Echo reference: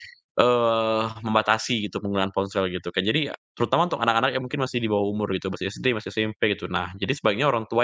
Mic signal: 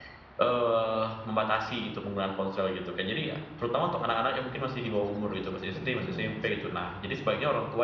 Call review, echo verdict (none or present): present